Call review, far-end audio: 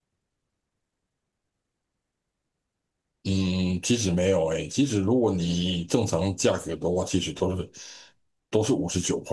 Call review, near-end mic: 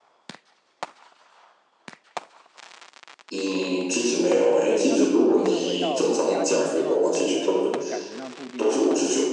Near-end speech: present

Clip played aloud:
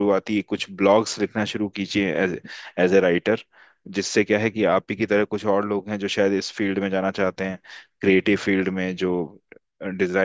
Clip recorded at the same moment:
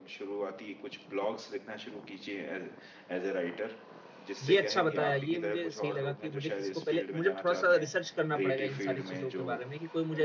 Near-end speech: present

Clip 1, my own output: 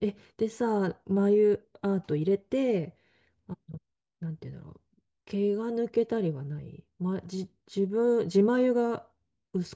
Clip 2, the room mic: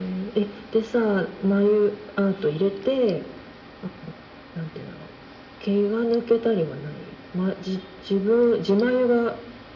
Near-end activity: none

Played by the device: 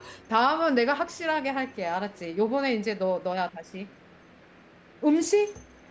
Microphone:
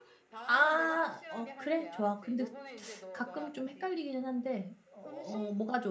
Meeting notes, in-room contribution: present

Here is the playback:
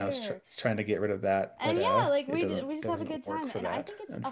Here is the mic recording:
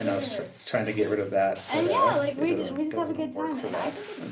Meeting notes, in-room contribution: none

